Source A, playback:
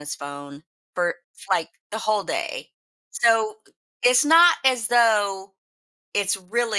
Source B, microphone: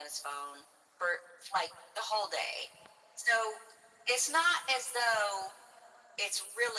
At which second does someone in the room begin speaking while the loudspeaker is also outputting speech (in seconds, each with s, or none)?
none